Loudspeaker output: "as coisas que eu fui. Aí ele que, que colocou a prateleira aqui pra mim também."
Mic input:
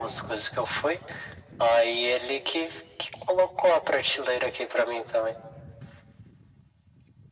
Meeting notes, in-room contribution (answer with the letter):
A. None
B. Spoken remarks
A